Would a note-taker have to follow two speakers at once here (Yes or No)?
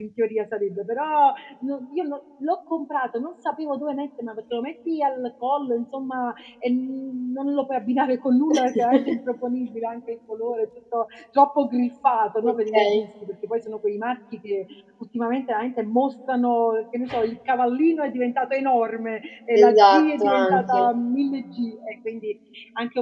Yes